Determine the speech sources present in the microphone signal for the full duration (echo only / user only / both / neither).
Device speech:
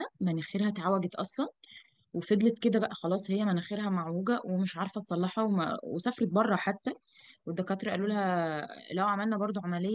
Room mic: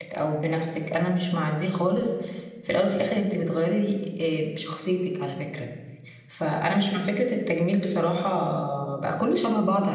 user only